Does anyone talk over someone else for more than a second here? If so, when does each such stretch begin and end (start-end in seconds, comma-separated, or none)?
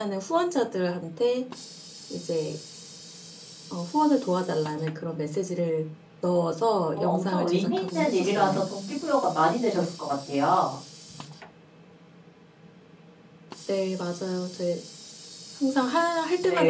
6.9-8.6